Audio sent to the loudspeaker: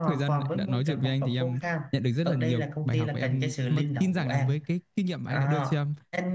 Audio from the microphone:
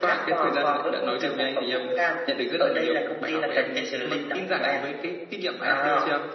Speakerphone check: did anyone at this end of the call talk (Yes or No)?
No